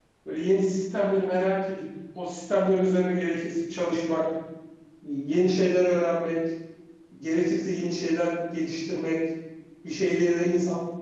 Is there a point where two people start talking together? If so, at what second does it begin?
none

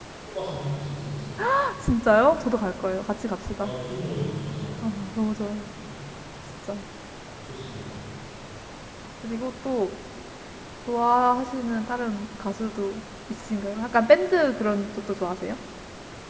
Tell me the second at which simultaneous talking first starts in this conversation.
none

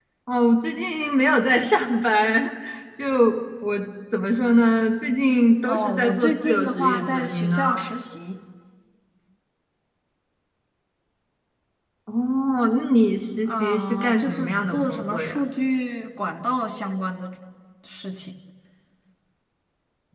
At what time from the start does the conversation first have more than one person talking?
5.6 s

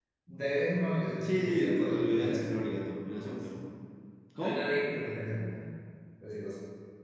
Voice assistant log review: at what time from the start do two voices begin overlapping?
1.2 s

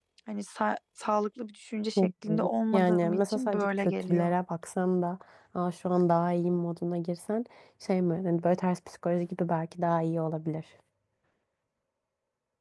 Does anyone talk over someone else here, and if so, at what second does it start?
2.0 s

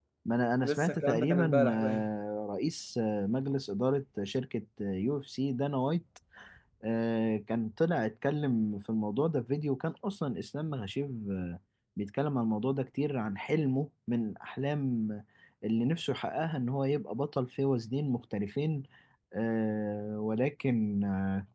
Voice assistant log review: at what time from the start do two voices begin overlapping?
0.6 s

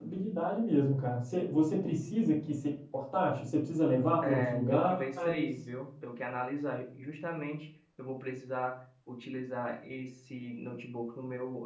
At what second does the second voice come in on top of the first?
4.2 s

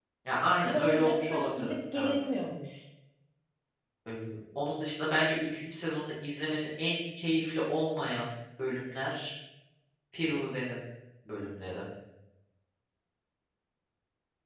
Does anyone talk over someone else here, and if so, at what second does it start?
0.6 s

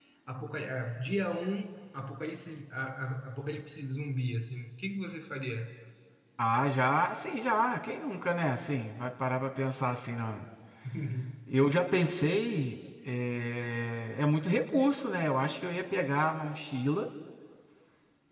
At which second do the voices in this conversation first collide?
none

